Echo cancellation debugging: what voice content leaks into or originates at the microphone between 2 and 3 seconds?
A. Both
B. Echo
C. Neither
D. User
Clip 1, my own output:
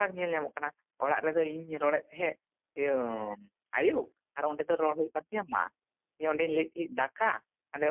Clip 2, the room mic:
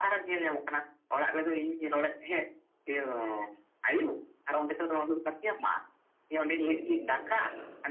B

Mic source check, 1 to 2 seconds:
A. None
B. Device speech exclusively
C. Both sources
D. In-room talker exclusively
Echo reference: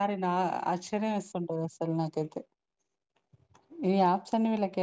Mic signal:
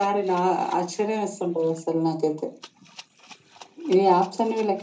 B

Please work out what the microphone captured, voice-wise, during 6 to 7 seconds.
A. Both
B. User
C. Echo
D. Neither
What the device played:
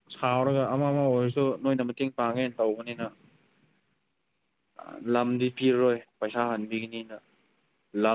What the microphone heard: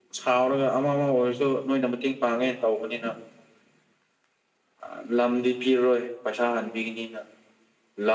C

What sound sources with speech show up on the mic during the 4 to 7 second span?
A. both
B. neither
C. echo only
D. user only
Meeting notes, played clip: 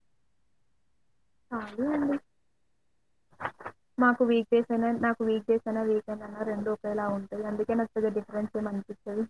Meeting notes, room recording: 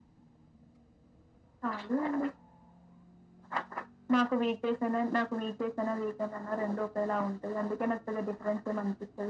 C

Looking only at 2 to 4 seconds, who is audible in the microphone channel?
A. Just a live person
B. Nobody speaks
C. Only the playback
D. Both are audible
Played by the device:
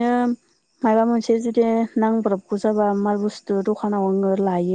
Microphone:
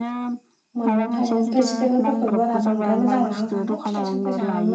D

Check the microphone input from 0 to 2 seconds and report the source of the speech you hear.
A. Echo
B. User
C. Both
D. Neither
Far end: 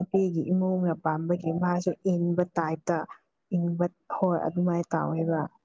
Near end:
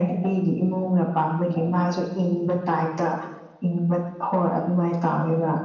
A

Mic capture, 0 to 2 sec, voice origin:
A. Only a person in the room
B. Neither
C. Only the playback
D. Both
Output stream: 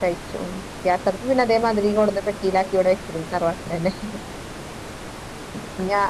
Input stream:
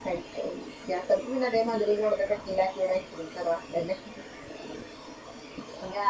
C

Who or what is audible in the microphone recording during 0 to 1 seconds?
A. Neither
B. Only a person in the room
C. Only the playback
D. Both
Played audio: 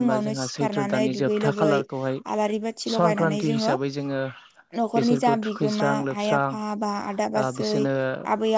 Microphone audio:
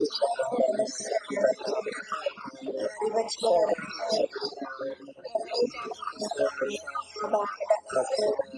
C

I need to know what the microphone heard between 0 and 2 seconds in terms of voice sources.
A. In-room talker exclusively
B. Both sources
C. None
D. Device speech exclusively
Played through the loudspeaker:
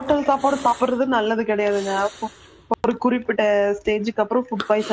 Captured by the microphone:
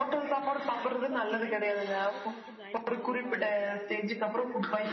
B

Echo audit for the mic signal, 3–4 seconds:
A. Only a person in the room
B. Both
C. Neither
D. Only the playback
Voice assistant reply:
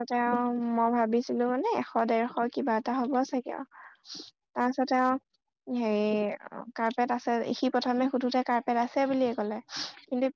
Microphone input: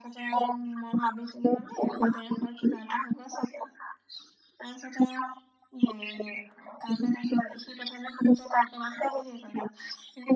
D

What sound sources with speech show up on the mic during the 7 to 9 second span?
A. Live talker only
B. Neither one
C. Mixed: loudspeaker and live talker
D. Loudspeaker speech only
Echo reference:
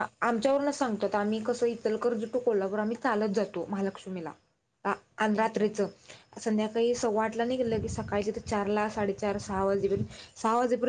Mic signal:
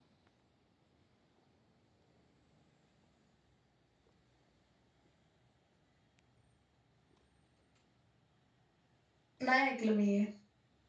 B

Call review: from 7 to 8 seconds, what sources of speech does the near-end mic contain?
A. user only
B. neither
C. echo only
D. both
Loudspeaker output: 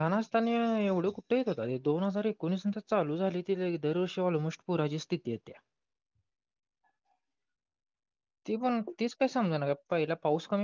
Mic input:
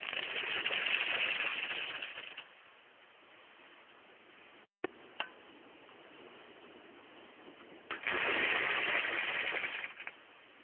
B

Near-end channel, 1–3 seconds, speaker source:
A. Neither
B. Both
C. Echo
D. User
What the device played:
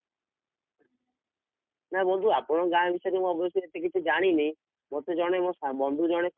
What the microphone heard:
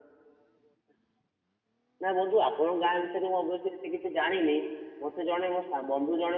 C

